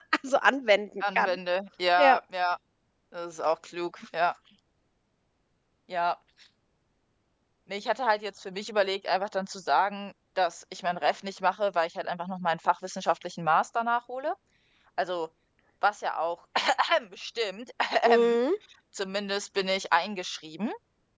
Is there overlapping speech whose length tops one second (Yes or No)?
No